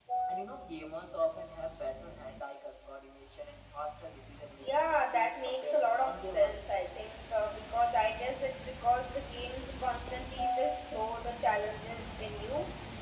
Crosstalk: present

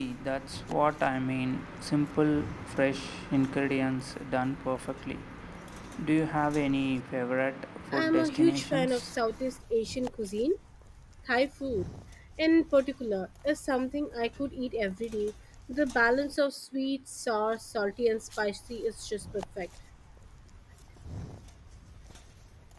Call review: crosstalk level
present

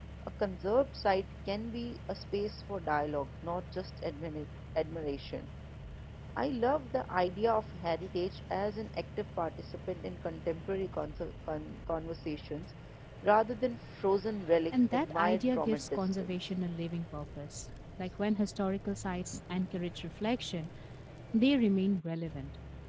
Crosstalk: present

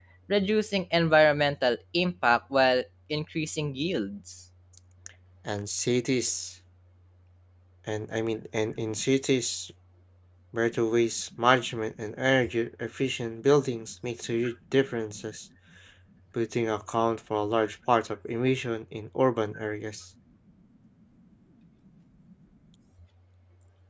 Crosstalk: none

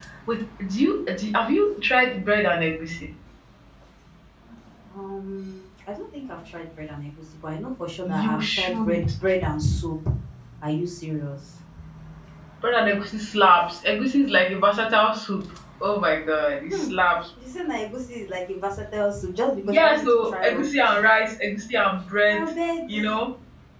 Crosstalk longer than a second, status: present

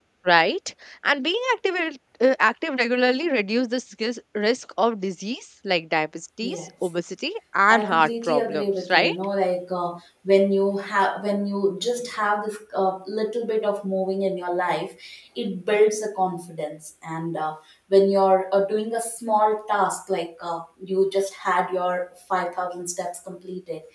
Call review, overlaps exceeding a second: present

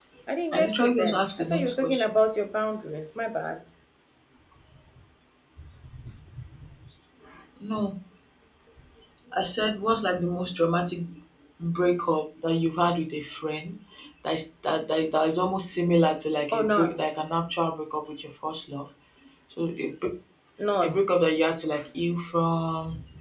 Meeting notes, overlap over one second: present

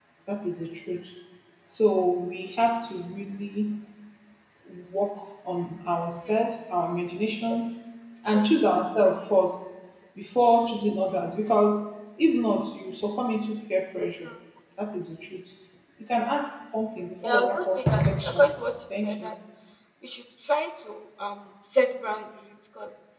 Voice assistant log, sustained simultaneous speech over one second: present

